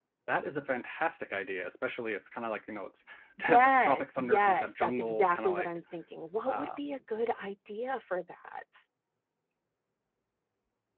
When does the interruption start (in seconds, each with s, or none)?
3.4 s